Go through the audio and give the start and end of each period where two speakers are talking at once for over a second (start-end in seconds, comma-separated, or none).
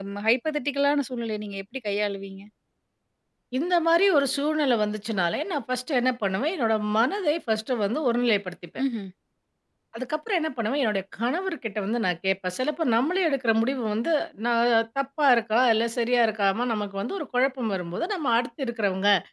none